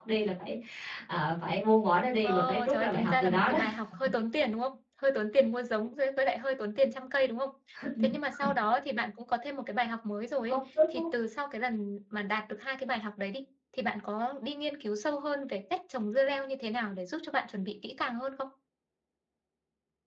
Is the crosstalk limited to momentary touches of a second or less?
No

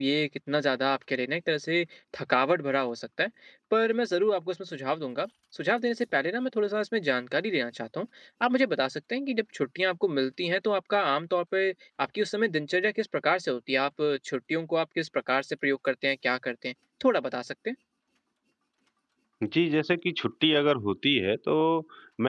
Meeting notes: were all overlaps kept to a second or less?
Yes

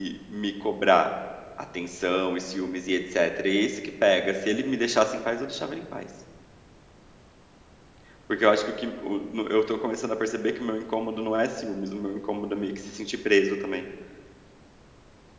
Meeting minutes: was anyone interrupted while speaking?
No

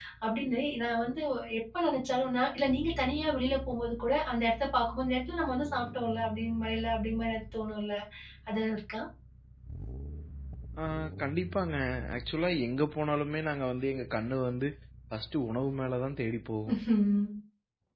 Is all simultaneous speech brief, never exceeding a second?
Yes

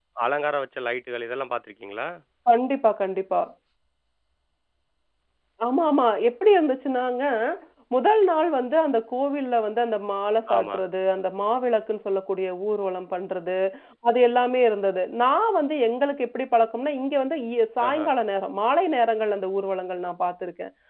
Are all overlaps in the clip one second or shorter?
Yes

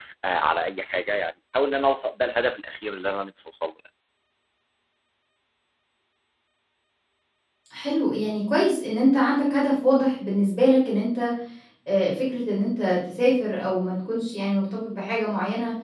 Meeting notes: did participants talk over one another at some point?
No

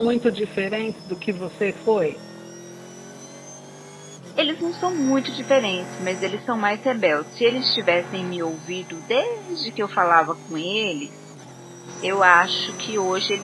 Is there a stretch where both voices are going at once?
No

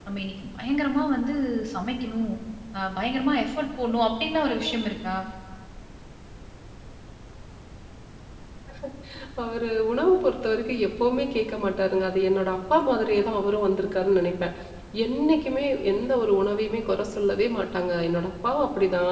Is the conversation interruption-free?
Yes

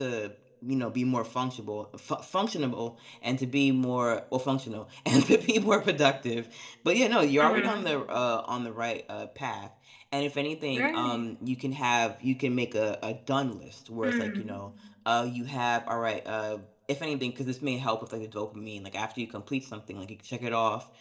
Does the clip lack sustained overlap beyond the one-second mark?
Yes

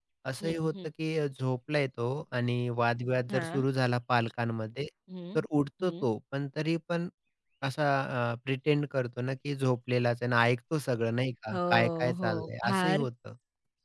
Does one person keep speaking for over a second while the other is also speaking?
Yes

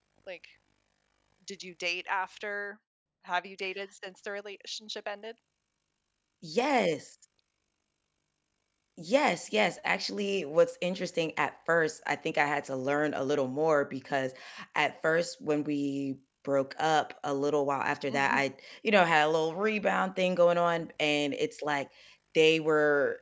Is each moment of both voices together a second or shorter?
Yes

